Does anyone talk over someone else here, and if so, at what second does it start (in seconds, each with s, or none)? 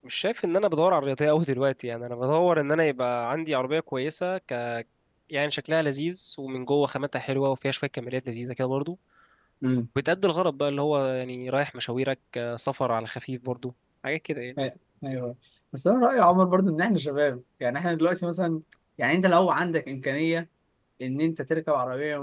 none